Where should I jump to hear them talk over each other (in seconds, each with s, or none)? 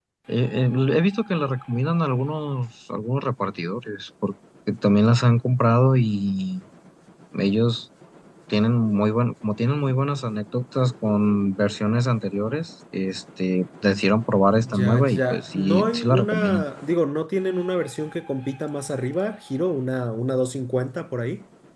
14.6 s